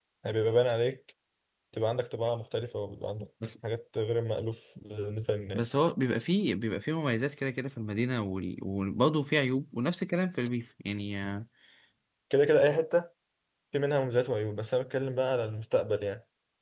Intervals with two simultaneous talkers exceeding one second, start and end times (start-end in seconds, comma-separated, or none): none